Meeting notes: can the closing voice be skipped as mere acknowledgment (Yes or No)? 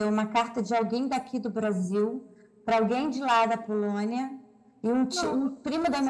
Yes